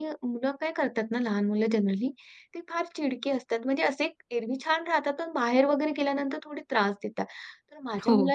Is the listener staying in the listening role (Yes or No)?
Yes